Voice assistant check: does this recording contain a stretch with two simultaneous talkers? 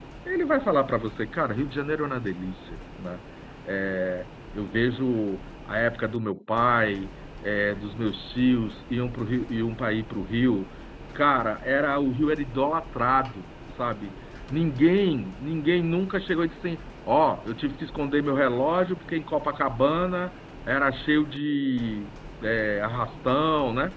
No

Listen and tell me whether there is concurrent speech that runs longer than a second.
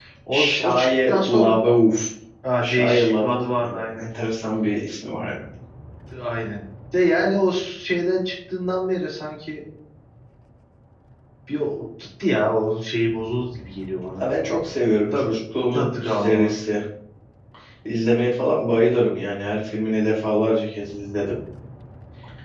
Yes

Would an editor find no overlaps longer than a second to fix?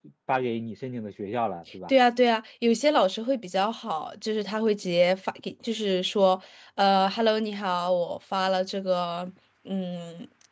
Yes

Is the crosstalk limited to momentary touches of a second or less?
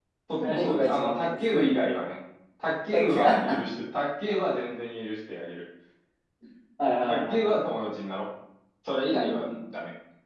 No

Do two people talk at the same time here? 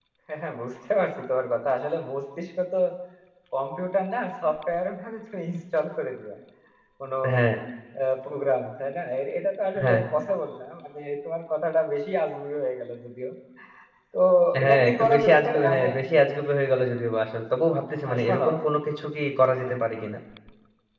Yes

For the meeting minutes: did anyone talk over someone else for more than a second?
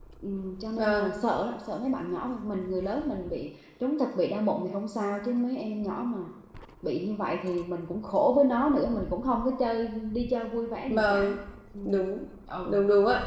No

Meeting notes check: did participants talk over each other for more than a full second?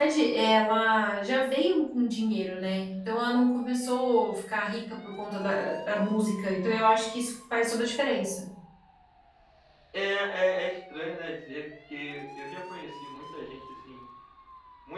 No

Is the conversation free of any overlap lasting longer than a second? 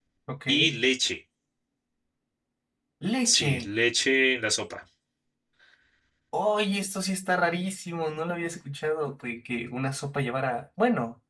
Yes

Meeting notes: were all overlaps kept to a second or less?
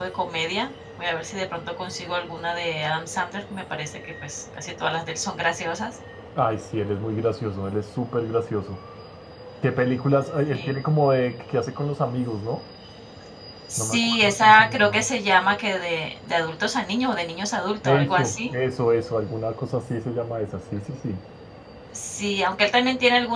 No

